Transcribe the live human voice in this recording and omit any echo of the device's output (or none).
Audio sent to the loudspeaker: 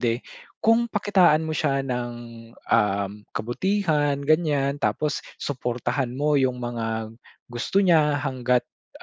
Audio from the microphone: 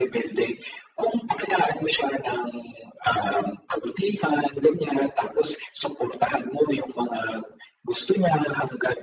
none